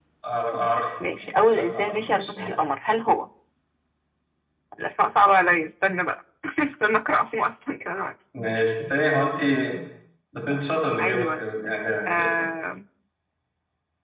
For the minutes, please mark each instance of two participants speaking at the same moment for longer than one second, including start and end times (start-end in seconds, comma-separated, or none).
1.2-2.5